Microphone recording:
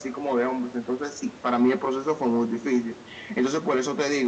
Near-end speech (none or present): none